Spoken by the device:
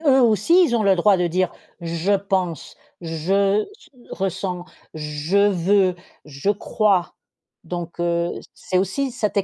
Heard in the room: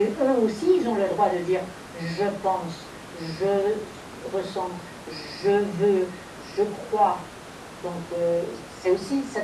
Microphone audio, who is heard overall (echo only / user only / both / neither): echo only